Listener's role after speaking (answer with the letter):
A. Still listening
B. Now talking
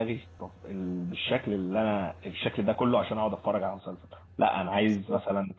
A